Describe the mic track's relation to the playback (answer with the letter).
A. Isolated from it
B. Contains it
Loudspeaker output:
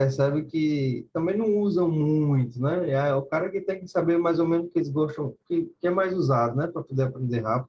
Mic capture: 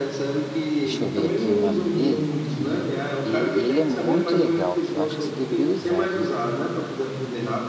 B